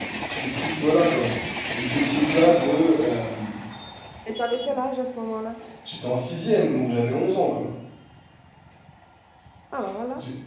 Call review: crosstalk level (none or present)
none